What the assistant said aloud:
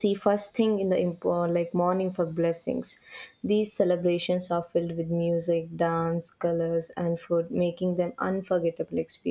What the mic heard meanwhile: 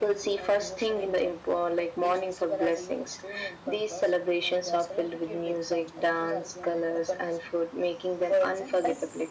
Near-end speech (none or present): present